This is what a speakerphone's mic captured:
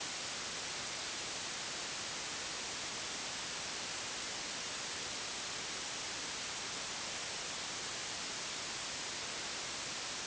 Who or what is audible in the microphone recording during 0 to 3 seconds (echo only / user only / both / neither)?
neither